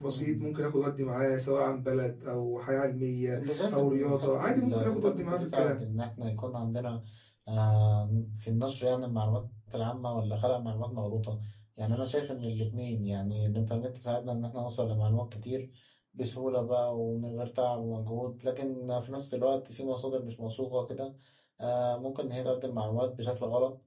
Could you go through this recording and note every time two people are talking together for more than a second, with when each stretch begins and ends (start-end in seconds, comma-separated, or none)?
3.3-5.8